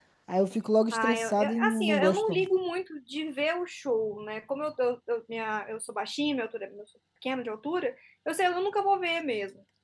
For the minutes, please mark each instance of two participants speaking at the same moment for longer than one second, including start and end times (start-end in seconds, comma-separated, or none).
0.9-2.4